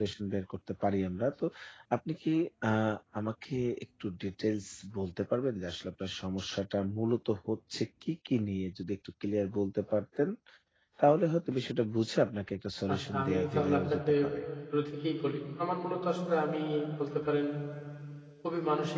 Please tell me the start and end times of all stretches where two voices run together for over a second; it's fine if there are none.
12.9-14.3

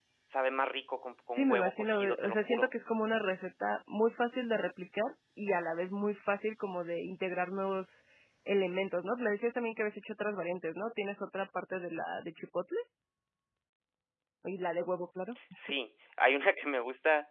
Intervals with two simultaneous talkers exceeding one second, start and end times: 1.3-2.7

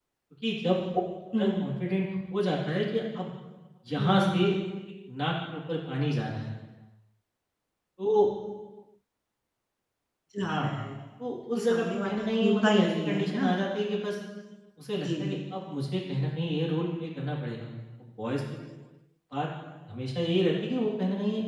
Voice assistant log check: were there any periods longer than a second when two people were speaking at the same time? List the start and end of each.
11.6-13.5

